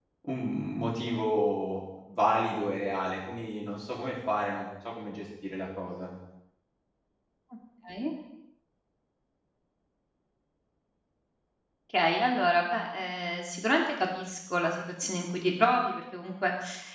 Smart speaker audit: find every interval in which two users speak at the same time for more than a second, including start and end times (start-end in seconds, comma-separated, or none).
none